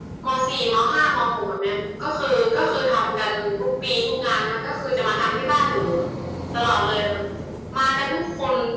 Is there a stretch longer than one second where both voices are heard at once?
No

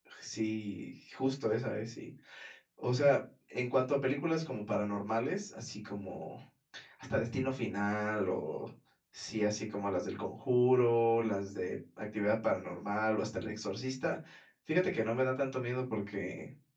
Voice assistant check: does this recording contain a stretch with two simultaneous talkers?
No

